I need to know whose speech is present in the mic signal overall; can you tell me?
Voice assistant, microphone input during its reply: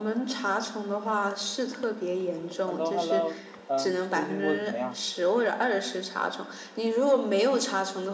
both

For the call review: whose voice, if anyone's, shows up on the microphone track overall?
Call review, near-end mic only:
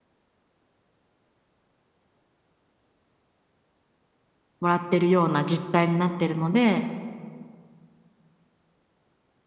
user only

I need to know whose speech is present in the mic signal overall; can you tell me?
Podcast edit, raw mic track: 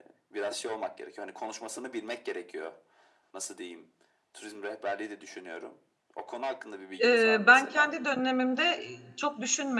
both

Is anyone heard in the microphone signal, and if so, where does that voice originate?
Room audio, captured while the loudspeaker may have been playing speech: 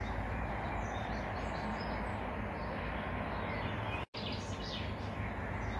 neither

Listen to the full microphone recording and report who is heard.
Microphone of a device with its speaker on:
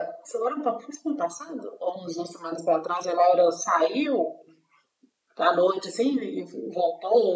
echo only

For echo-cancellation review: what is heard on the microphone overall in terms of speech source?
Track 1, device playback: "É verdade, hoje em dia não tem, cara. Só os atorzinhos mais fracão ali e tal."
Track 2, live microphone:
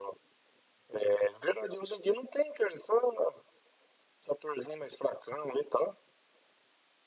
echo only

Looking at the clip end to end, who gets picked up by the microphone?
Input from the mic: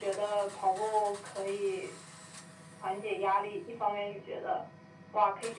echo only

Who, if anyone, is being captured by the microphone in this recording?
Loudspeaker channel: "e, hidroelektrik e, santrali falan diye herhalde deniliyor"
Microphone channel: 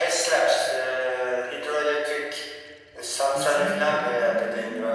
both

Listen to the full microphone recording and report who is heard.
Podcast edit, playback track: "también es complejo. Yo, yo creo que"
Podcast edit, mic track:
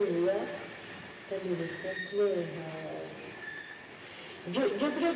echo only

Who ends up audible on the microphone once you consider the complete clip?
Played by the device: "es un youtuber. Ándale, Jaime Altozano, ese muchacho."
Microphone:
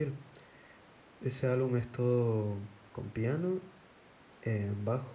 user only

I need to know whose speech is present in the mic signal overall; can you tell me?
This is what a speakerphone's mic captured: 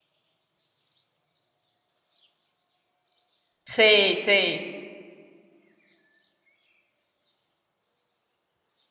user only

